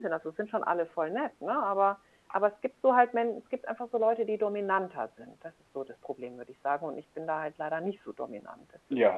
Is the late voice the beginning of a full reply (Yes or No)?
Yes